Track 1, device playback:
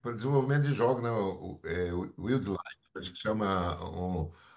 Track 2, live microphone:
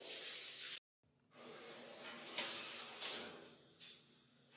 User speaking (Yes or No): No